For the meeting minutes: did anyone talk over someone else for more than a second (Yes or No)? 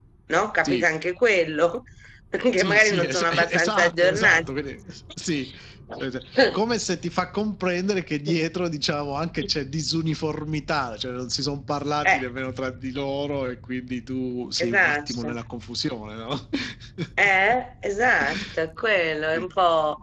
Yes